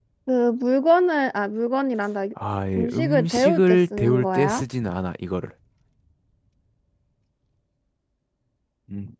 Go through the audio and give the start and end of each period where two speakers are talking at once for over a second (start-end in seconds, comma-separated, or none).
2.8-4.6